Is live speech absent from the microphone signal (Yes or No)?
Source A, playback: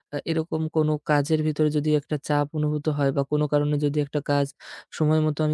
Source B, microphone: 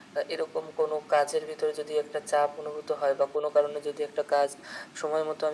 Yes